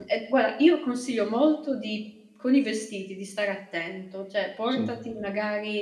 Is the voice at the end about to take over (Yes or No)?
No